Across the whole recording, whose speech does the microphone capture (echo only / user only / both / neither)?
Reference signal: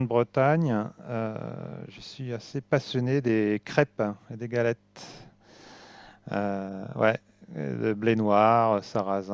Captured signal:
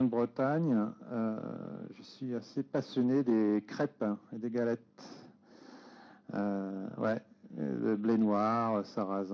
echo only